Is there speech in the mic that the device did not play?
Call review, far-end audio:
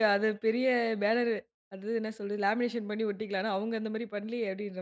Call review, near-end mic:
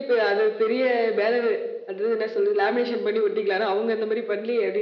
No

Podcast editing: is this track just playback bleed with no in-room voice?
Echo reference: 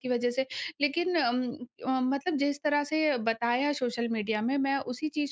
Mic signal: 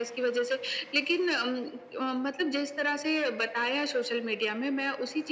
Yes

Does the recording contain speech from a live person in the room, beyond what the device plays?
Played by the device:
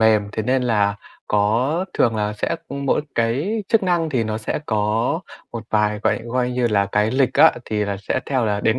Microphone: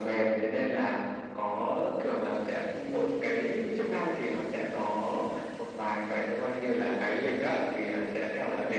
No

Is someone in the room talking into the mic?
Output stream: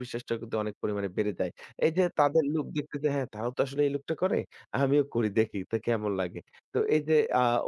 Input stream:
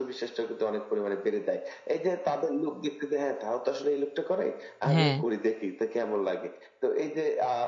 Yes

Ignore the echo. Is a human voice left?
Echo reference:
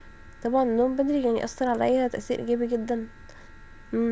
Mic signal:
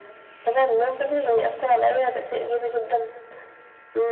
No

